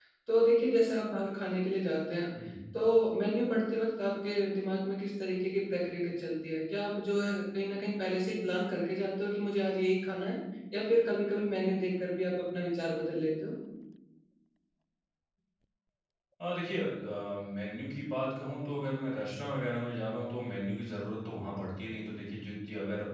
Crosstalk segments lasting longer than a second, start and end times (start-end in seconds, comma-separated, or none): none